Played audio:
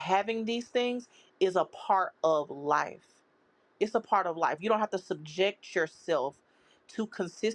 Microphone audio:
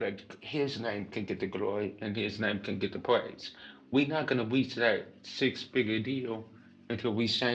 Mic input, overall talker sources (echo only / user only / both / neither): user only